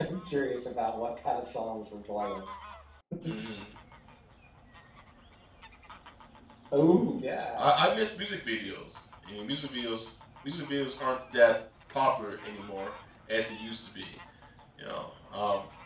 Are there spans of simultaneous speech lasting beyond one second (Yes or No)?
No